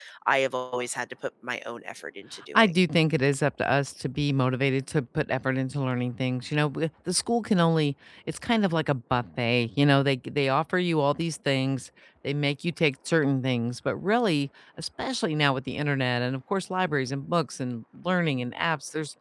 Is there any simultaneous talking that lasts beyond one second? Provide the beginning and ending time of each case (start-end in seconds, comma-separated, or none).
none